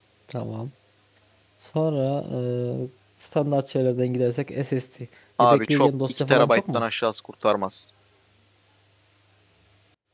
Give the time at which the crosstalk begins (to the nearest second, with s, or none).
5 s